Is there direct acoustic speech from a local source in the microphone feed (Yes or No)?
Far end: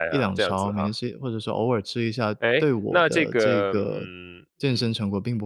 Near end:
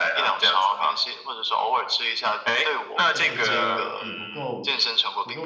Yes